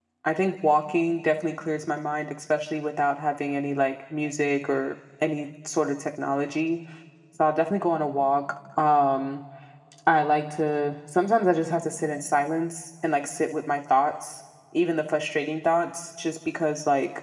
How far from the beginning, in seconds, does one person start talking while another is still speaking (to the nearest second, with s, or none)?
none